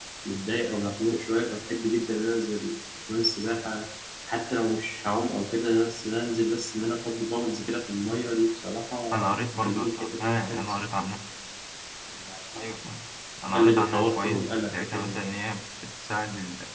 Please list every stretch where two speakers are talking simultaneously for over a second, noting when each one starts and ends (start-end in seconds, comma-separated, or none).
9.1-10.6, 13.5-15.2